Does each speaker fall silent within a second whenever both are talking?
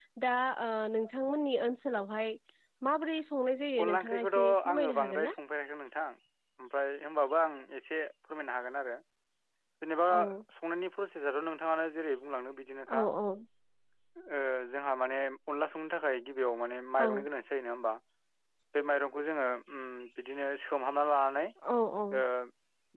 No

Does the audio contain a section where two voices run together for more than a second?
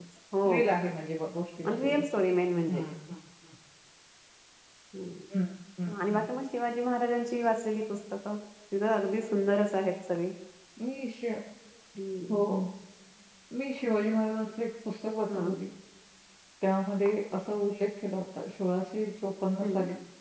No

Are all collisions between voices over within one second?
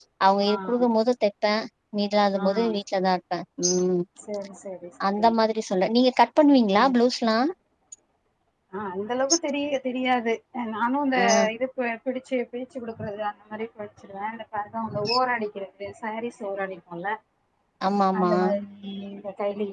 Yes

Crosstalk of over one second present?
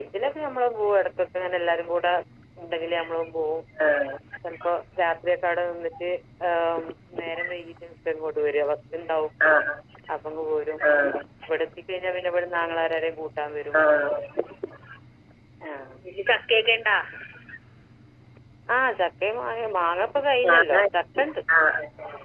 No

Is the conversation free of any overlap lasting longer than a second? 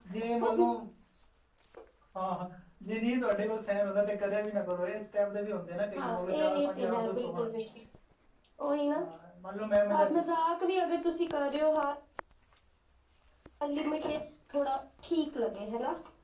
No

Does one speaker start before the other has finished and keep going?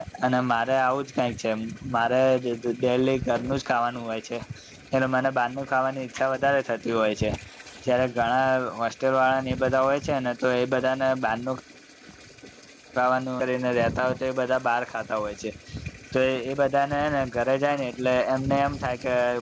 No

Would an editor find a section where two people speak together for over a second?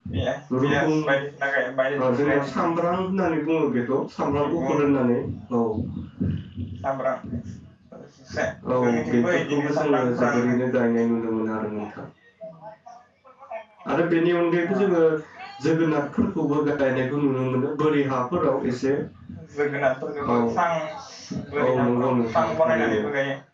Yes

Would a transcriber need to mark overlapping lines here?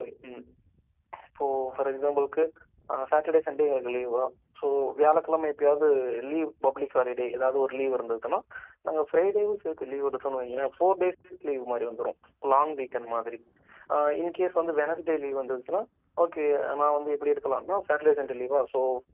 No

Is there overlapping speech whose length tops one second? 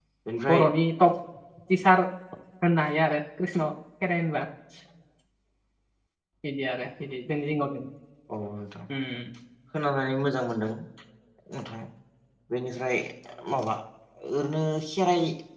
No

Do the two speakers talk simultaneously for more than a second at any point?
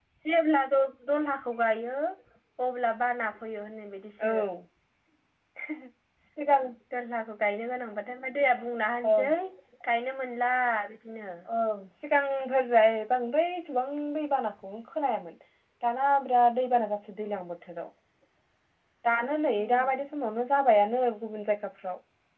No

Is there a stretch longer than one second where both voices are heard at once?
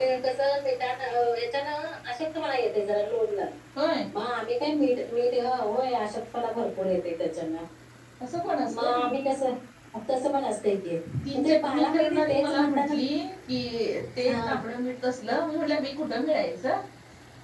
Yes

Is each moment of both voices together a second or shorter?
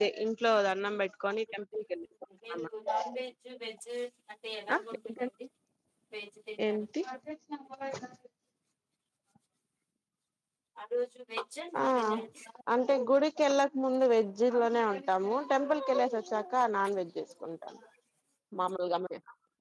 Yes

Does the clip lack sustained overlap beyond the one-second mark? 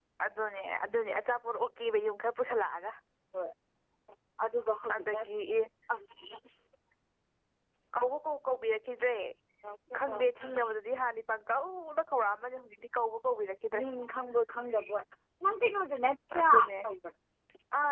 Yes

